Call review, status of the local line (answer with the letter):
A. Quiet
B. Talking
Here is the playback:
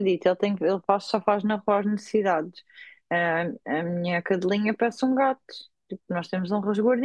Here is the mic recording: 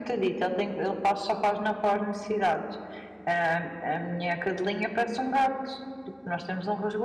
A